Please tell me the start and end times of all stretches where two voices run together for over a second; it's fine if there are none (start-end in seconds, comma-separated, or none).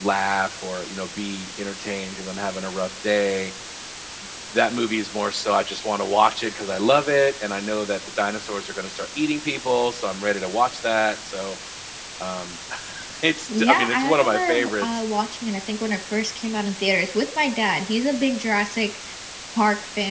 13.6-14.9